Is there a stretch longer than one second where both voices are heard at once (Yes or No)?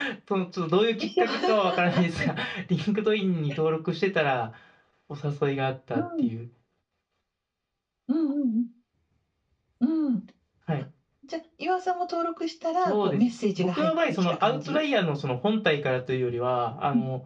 Yes